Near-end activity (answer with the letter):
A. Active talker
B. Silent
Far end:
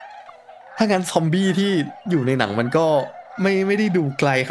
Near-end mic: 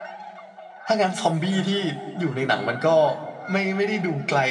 B